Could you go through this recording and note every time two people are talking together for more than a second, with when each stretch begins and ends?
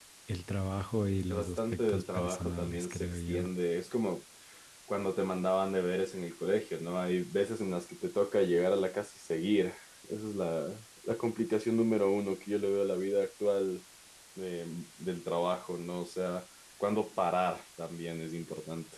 1.3-3.4

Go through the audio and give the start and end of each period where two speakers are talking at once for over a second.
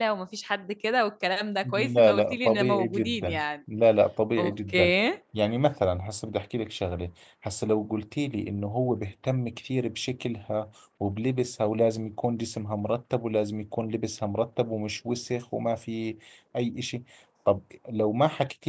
1.7-3.4

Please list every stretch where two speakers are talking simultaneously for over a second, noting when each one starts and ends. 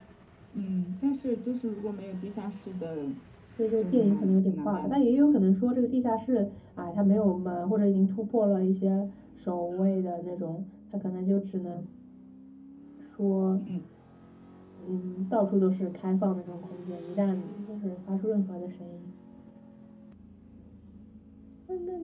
3.8-5.0

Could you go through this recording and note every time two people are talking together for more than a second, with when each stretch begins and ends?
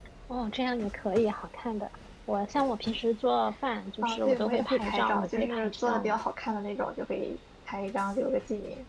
4.0-6.2

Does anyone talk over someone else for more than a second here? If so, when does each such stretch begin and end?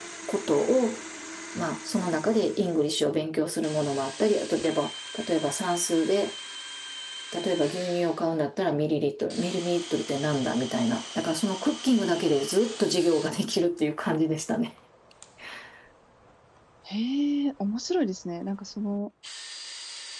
none

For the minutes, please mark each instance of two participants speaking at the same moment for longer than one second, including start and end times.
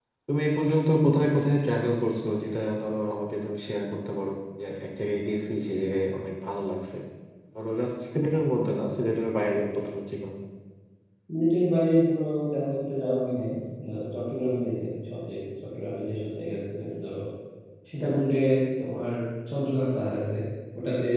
none

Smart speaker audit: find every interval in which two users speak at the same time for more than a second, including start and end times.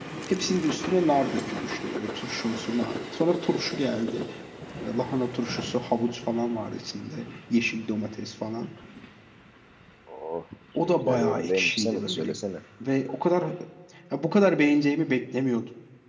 10.8-12.4

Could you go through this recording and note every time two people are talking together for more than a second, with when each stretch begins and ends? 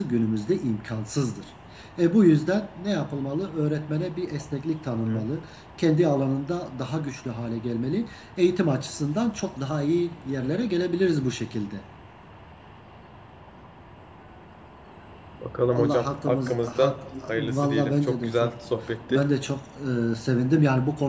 15.7-18.6

